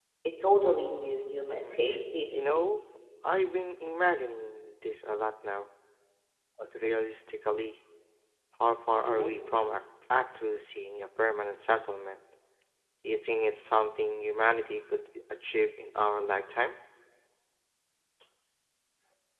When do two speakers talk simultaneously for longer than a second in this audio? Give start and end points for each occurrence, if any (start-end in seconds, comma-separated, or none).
none